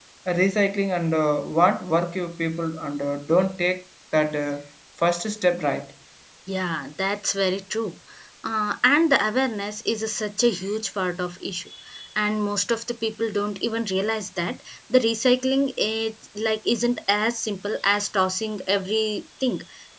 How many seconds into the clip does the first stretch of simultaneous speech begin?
none

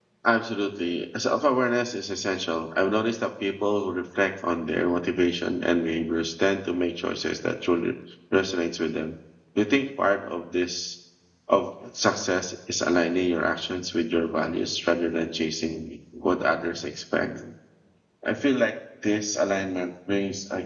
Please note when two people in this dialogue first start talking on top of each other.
none

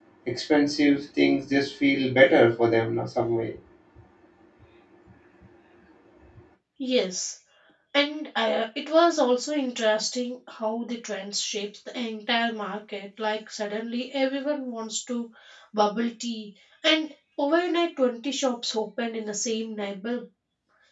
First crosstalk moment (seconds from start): none

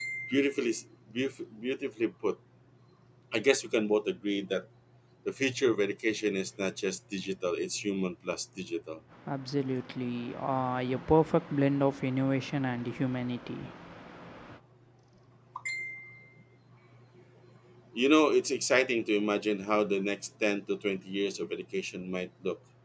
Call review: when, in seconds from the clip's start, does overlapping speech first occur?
none

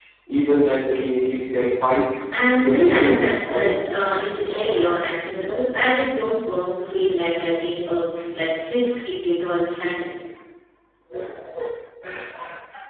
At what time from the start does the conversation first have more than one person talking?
2.6 s

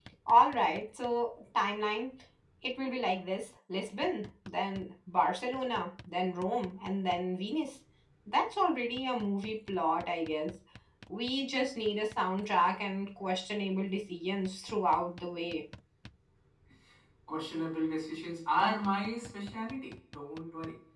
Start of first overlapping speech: none

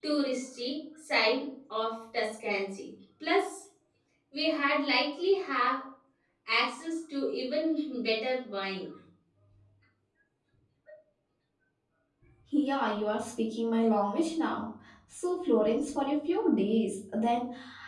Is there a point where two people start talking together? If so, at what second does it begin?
none

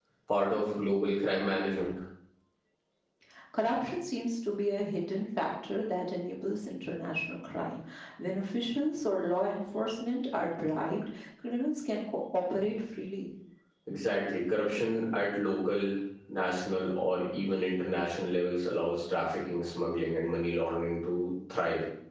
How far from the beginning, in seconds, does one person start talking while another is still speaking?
none

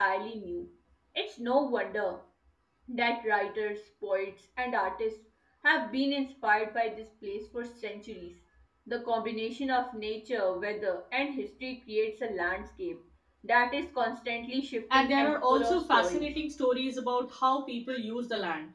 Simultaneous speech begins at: 14.9 s

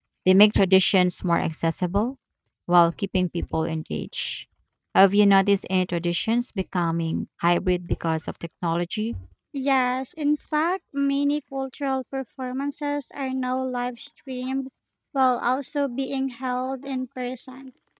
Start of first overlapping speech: none

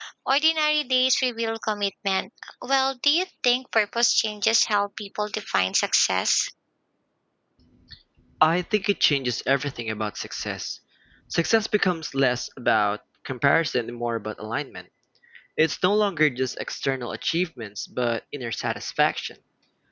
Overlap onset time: none

